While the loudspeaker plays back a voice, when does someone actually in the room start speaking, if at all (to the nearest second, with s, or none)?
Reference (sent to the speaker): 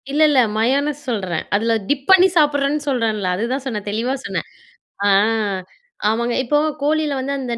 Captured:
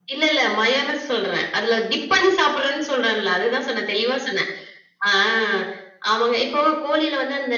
none